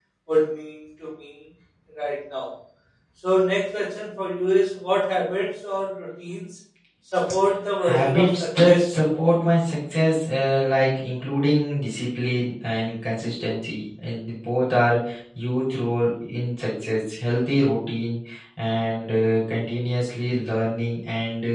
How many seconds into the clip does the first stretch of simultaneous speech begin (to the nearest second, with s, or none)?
8 s